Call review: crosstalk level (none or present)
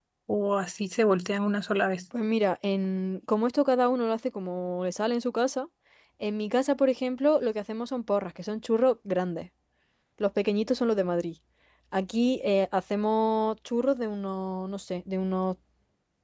none